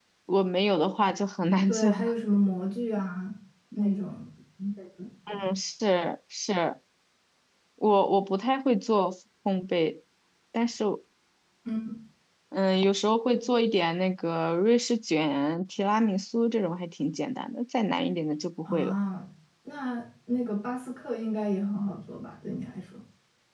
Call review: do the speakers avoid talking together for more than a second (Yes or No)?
Yes